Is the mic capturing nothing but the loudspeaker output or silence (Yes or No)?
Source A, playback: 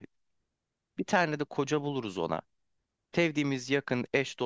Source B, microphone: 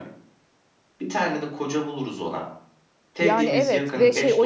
No